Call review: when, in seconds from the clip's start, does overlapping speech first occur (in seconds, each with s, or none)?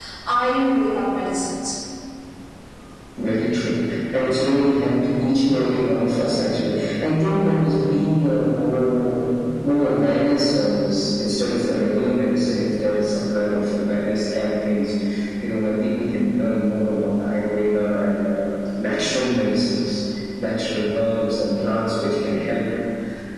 none